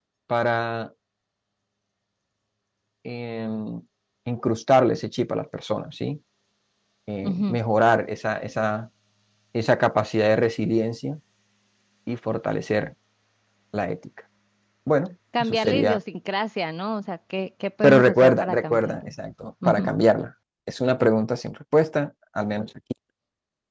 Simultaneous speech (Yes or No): Yes